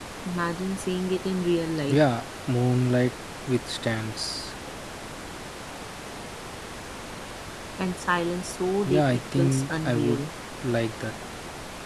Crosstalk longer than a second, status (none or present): present